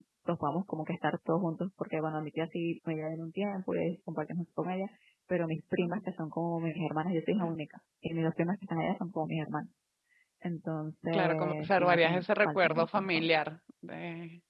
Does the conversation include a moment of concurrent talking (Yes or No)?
Yes